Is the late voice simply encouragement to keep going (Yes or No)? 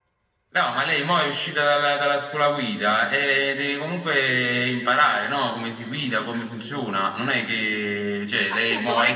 No